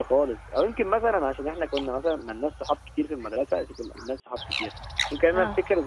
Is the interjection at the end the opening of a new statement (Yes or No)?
No